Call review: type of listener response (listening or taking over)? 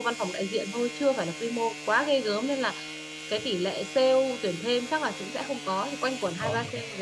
listening